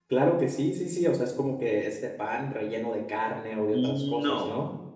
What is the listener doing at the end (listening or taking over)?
taking over